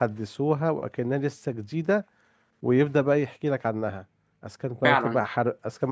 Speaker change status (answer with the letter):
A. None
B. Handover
A